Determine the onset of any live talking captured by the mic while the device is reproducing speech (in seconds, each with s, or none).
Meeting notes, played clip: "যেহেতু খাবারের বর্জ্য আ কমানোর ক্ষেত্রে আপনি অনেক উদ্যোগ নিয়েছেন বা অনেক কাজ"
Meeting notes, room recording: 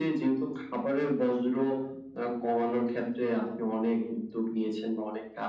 none